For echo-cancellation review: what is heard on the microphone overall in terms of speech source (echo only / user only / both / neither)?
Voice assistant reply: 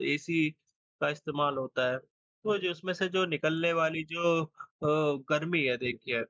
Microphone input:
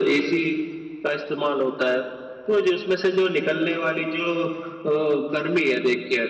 echo only